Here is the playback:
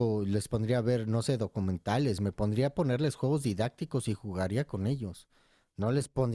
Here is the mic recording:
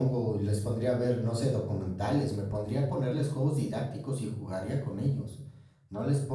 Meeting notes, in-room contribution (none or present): none